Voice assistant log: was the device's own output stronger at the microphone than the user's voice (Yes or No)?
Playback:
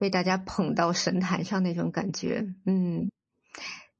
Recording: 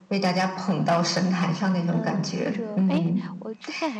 Yes